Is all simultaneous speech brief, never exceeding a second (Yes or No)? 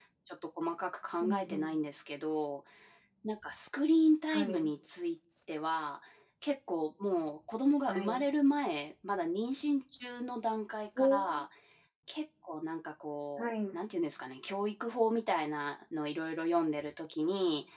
Yes